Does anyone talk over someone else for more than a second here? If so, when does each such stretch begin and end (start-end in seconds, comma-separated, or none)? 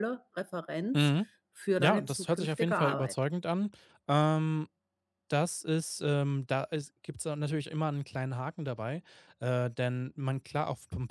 1.8-3.1